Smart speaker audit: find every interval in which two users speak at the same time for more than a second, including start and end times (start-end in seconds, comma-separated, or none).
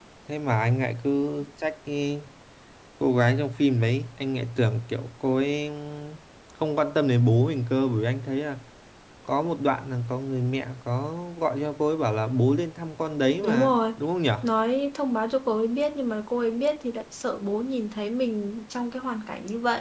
none